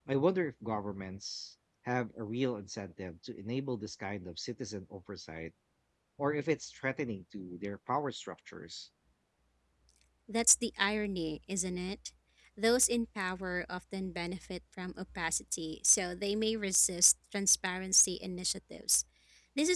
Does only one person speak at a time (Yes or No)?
Yes